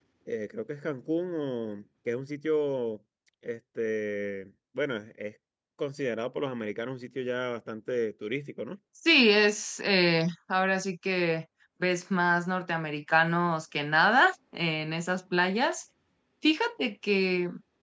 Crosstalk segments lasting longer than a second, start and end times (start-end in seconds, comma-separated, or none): none